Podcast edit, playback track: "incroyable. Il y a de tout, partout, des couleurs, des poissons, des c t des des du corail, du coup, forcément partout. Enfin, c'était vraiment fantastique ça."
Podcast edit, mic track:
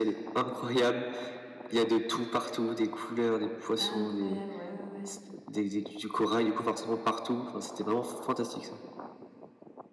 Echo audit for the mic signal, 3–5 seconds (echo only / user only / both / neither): both